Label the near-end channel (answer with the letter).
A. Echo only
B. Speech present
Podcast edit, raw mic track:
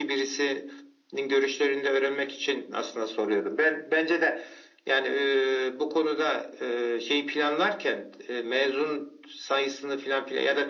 A